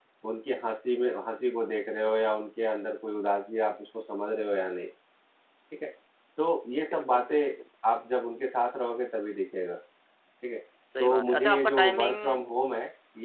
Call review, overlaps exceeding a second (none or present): present